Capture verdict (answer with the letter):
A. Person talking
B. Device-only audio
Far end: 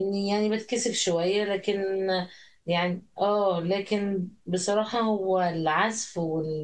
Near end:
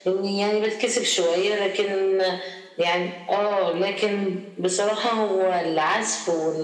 B